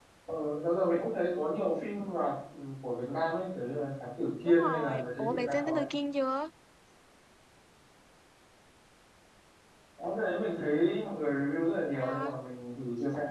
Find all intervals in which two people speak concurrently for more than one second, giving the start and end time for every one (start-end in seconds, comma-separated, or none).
4.4-5.8